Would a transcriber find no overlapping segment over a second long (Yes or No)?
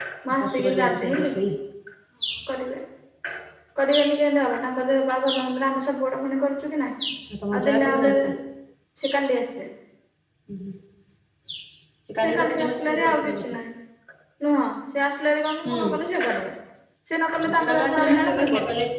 No